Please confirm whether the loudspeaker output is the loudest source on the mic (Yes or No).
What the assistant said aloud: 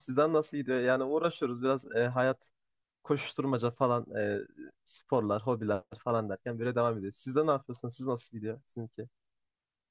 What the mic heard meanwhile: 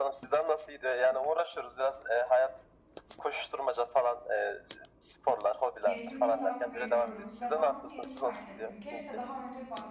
Yes